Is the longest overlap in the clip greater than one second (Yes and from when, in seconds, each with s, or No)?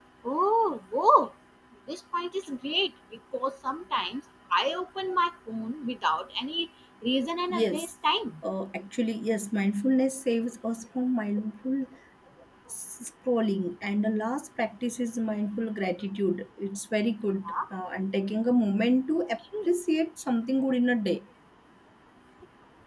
No